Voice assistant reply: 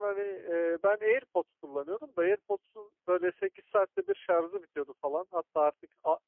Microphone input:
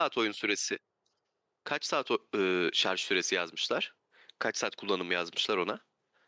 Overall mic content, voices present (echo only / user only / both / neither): user only